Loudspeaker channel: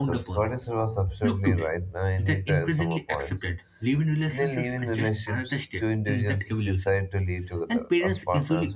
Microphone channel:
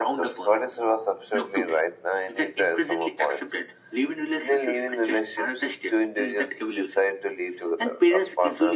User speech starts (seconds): none

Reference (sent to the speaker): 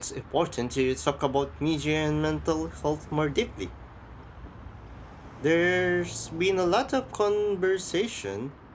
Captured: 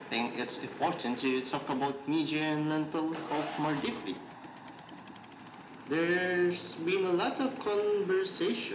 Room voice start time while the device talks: none

